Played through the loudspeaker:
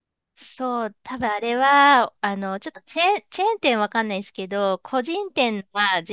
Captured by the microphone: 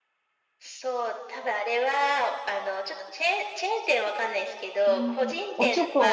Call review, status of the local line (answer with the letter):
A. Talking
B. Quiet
A